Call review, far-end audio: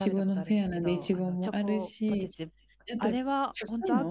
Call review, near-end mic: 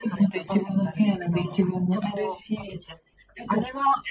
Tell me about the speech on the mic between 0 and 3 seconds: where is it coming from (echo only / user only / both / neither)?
echo only